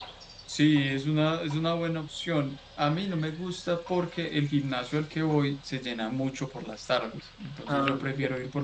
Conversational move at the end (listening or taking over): listening